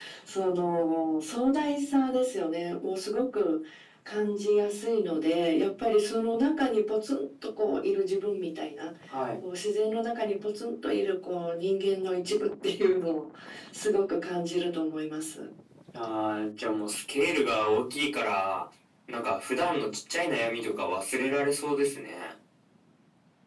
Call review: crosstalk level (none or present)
none